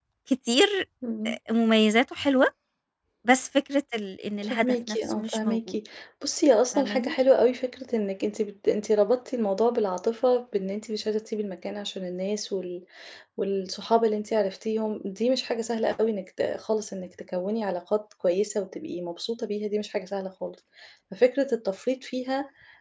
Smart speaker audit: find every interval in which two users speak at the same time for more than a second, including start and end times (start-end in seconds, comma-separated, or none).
4.4-5.7